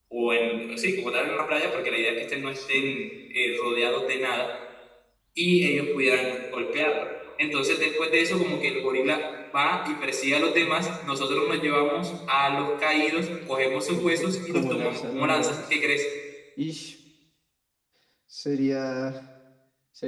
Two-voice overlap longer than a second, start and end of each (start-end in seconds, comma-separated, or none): 13.9-15.8